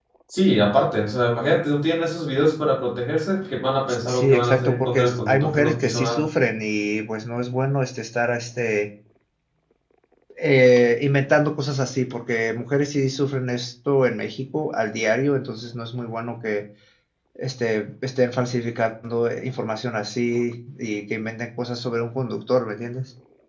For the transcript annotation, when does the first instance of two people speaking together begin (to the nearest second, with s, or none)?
4 s